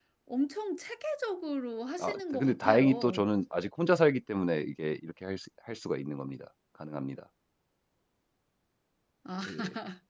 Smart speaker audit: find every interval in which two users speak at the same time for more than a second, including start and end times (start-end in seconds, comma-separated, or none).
2.0-3.2